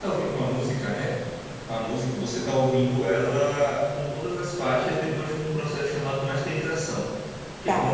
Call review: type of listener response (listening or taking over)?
listening